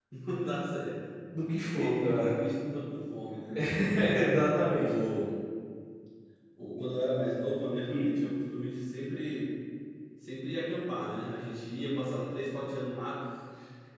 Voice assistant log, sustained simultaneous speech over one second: none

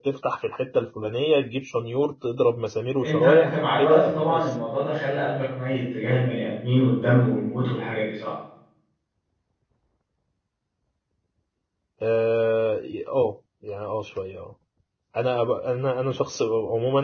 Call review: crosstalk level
present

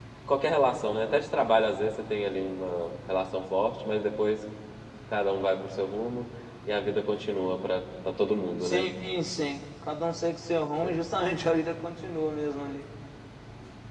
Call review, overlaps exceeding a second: none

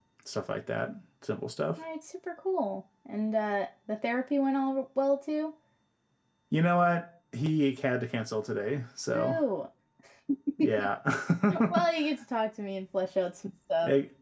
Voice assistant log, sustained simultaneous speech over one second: none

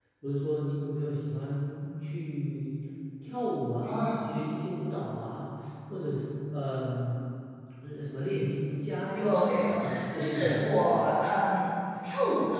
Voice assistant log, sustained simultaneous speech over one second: present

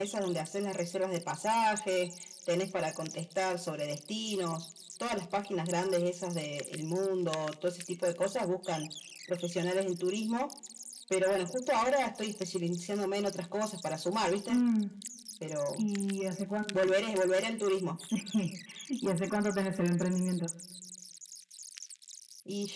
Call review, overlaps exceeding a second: none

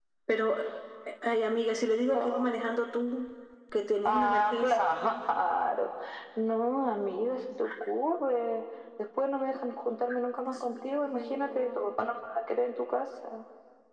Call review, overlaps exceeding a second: present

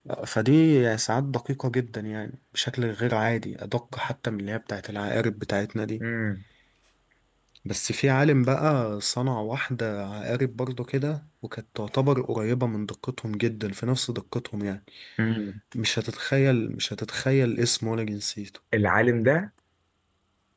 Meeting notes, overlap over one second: none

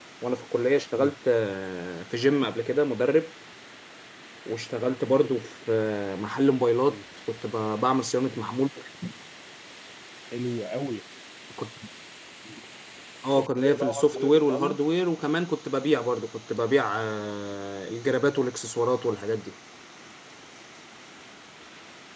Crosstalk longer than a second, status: present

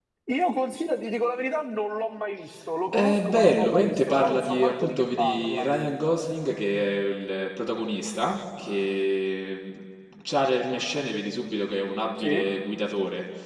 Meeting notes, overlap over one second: present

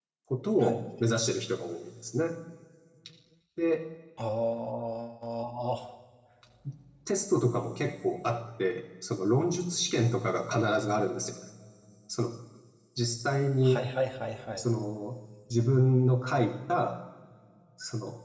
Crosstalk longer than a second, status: none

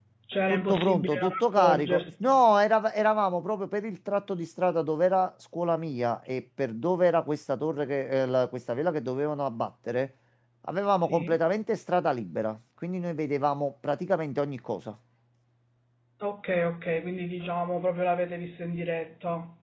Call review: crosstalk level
present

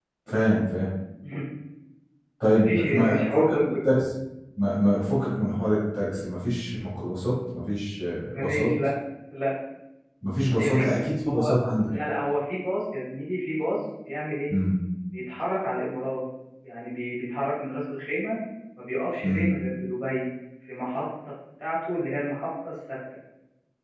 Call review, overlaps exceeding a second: present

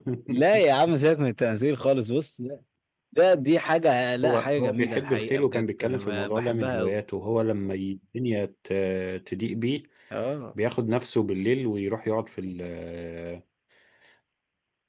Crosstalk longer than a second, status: present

